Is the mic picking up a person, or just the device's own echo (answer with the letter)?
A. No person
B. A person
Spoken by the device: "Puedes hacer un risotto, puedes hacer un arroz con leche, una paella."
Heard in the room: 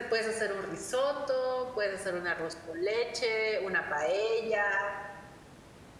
A